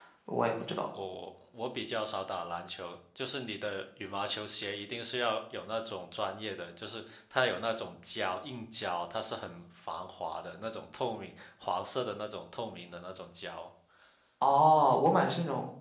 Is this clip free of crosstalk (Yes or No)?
Yes